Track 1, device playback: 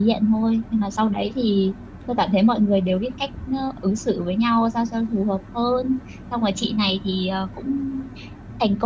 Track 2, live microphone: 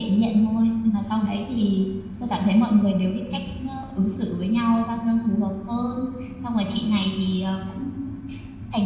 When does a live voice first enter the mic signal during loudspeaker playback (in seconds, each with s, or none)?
none